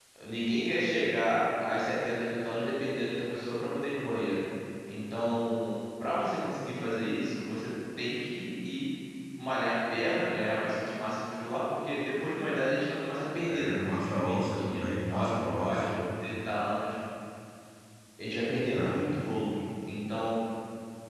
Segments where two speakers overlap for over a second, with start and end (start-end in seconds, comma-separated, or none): 13.5-15.9